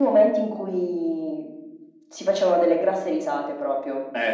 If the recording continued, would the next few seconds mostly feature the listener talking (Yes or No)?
Yes